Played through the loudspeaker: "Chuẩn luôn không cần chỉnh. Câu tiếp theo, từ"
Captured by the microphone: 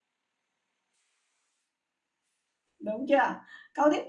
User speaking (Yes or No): Yes